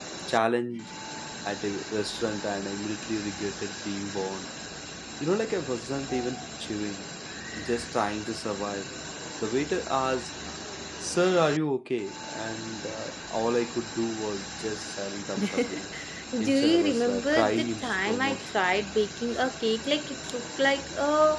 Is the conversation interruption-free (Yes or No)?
No